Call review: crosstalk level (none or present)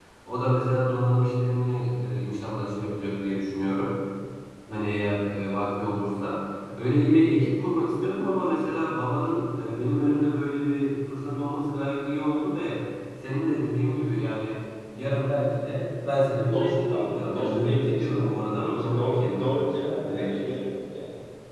present